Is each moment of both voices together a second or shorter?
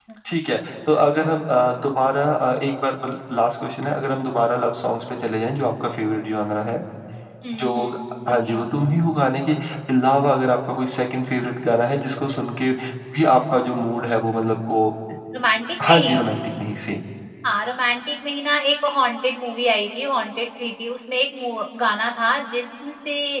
Yes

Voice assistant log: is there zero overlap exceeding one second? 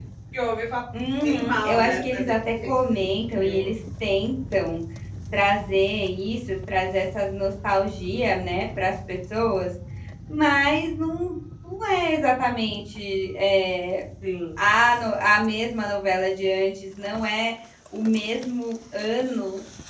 No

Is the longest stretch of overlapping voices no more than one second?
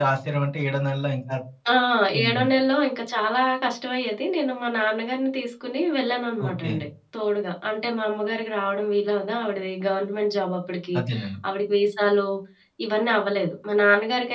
Yes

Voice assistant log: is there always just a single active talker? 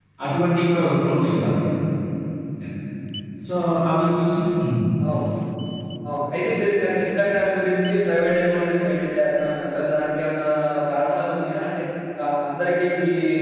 Yes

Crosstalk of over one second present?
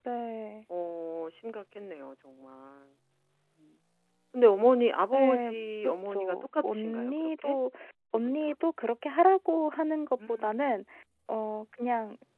Yes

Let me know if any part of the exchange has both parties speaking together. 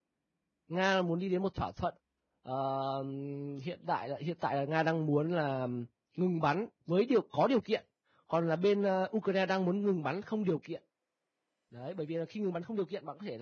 No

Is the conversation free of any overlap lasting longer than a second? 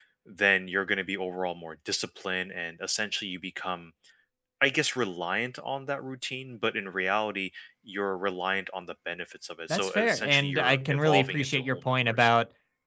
No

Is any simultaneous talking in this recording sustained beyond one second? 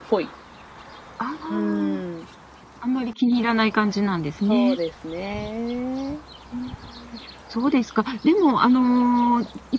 No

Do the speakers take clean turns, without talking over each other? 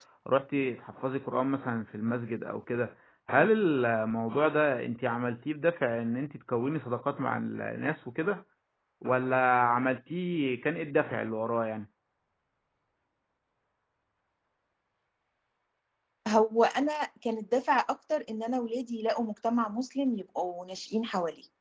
Yes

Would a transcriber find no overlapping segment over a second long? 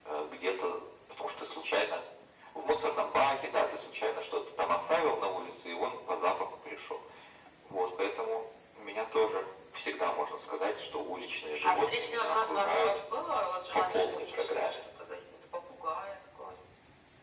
No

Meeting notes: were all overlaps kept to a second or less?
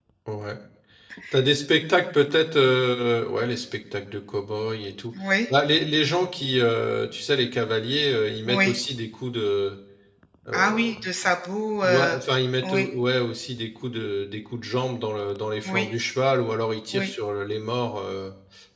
Yes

